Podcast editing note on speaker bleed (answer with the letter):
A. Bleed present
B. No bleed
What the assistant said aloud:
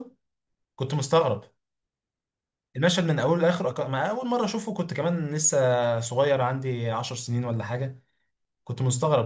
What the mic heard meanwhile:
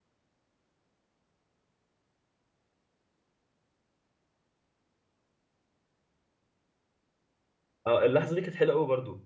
B